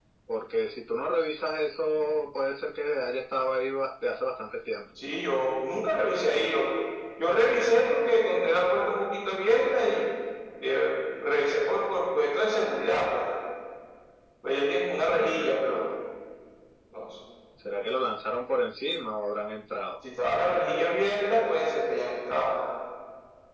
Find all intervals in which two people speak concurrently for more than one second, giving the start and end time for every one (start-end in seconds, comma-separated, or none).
none